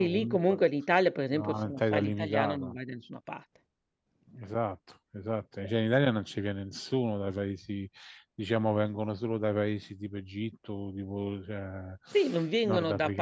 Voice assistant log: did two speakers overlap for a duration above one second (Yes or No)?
Yes